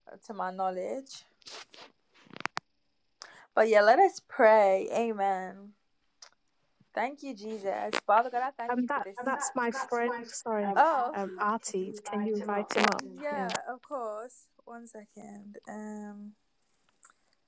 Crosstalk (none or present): present